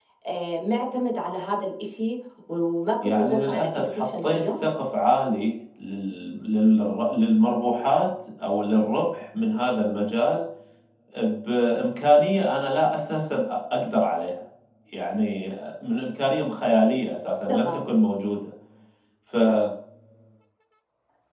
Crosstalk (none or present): present